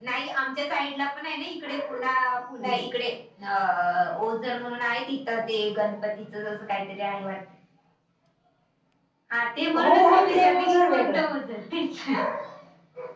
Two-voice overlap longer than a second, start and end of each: 9.8-11.2

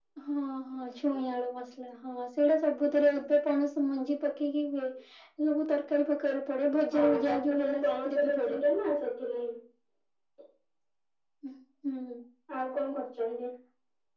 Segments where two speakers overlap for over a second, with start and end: 6.9-8.6

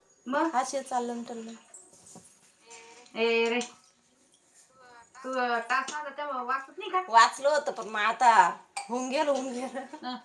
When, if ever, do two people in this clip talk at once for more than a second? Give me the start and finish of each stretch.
none

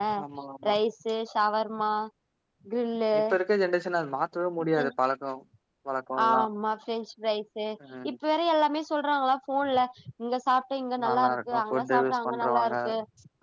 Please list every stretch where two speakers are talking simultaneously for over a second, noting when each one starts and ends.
11.1-12.8

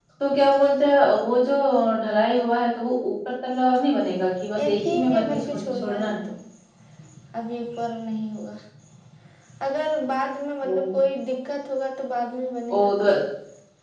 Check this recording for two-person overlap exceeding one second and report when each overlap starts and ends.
4.6-6.1

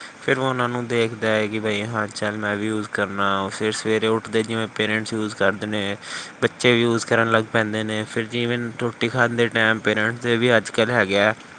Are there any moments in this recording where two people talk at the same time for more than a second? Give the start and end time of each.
none

